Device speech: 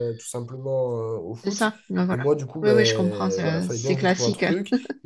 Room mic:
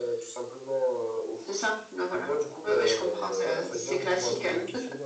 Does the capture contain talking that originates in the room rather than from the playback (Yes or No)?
Yes